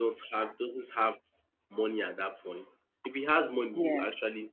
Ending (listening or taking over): listening